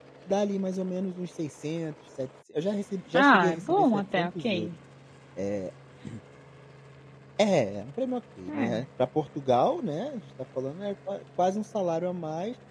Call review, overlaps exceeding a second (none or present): present